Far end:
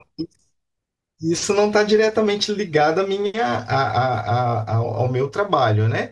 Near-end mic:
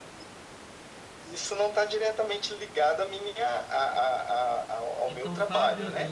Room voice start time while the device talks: 5.0 s

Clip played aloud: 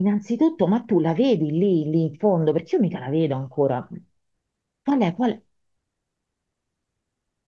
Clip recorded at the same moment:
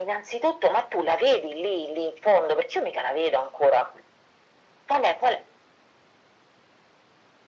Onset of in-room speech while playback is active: none

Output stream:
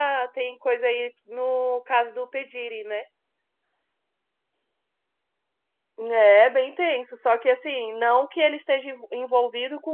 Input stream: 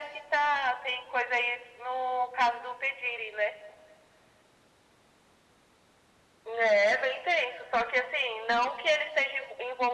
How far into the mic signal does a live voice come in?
none

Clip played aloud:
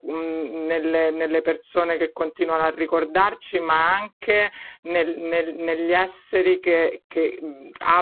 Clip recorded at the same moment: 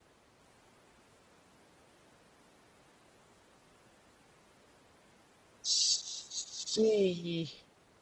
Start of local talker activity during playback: 5.6 s

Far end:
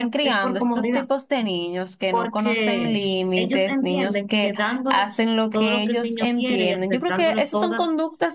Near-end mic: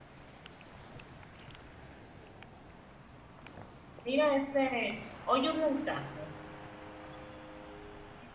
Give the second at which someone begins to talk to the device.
4.0 s

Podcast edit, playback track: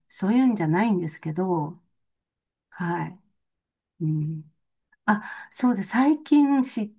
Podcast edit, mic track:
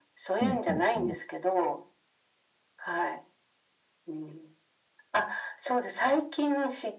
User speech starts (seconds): 0.4 s

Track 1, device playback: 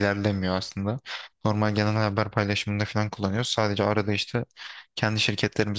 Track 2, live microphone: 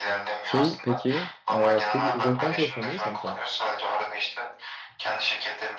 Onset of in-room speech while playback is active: 0.4 s

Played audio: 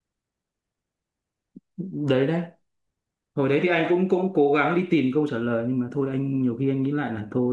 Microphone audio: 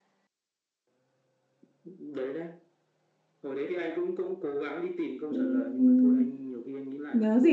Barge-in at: 5.3 s

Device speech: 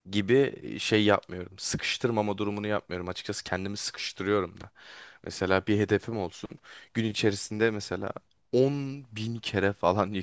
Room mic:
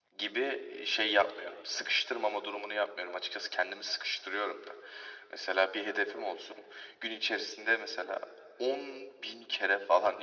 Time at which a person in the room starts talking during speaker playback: none

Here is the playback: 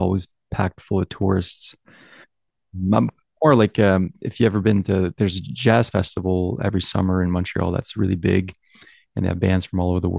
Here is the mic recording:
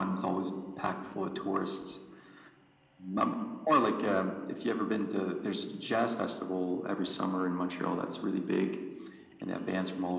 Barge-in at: none

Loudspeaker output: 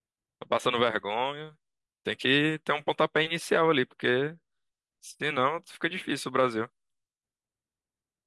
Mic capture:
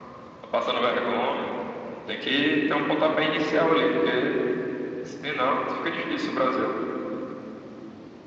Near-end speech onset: none

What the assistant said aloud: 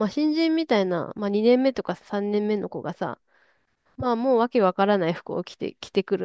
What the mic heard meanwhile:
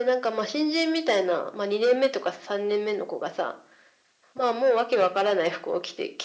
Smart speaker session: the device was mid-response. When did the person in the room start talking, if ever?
none

